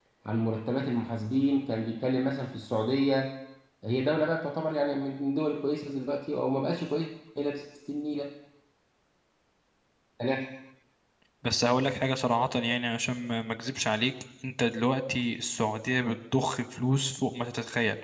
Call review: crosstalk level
none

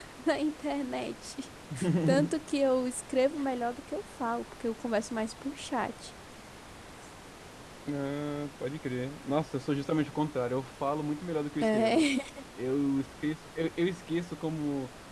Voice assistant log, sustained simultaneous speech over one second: none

